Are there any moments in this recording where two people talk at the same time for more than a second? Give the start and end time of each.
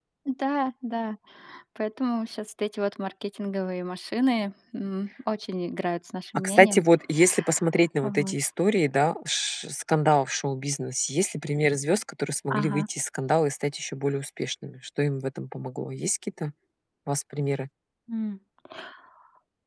none

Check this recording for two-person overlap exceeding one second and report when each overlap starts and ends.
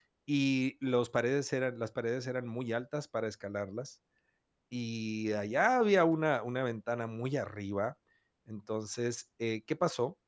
none

